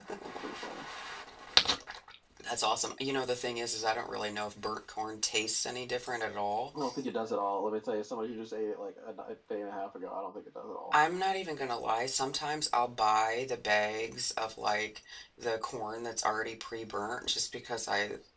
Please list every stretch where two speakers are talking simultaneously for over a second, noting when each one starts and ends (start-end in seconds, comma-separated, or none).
none